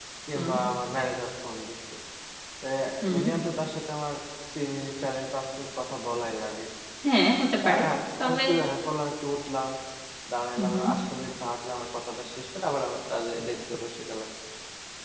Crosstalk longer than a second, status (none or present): none